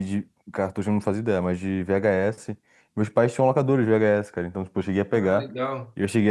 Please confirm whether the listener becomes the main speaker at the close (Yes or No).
No